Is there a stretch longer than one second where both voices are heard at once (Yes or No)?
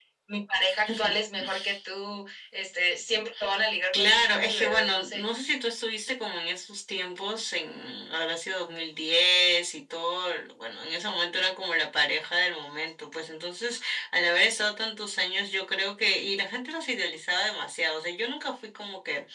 Yes